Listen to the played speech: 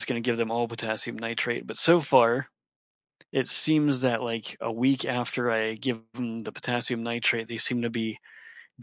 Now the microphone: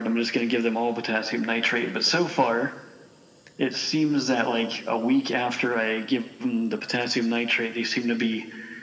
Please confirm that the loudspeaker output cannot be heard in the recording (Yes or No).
No